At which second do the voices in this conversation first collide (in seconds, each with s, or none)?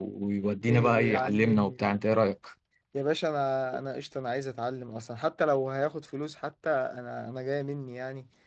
0.7 s